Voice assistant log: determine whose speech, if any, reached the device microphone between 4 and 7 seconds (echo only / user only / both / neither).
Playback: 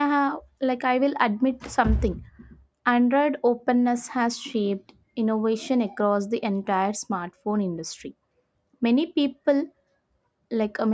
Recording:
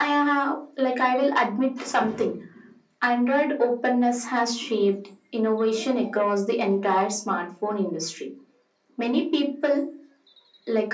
echo only